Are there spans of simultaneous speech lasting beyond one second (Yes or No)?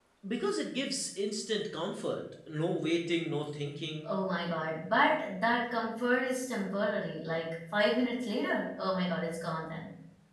No